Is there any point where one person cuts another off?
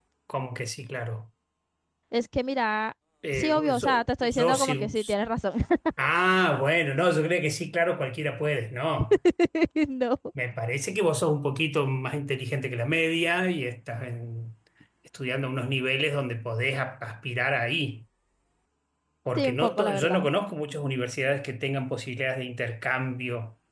Yes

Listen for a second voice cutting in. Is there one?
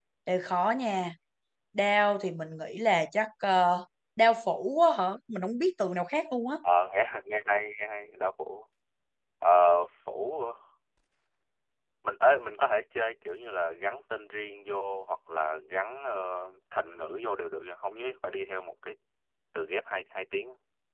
No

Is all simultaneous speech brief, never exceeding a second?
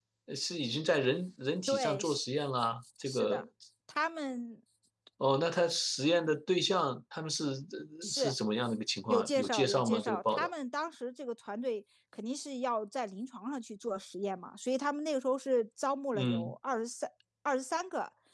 No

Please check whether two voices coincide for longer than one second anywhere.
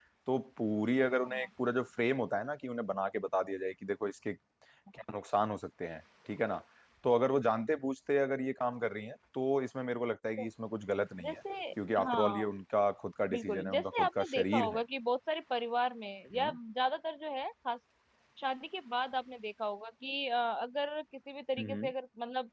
Yes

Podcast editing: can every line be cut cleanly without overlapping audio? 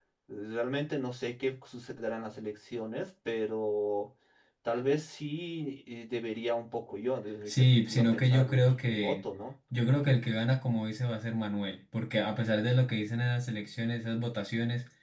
No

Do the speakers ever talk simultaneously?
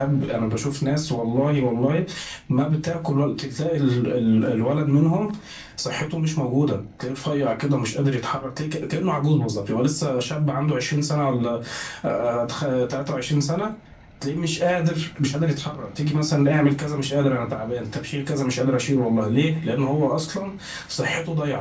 No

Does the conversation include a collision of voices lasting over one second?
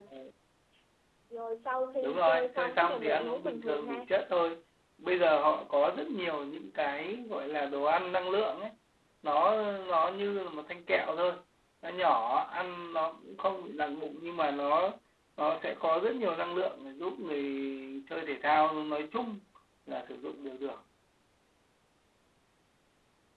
Yes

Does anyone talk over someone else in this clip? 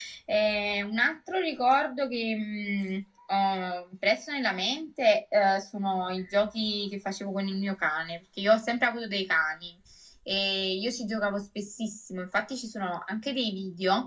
No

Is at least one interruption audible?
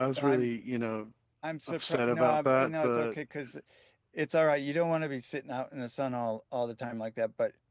Yes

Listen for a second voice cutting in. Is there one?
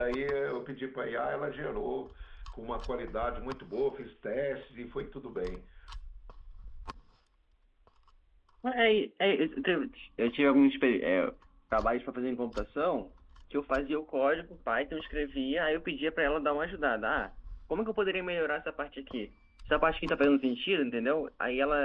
No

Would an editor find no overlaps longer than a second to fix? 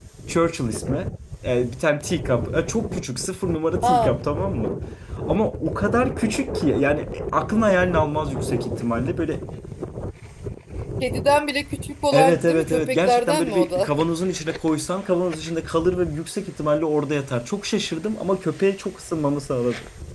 No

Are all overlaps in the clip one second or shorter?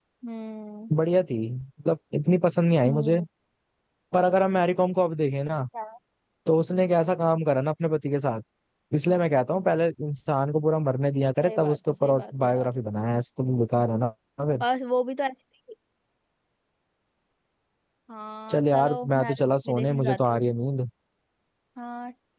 No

